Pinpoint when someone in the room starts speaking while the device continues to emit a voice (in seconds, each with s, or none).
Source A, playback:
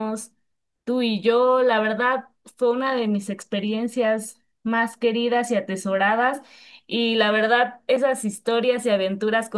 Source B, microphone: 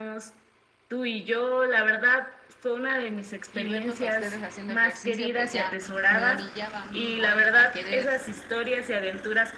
3.5 s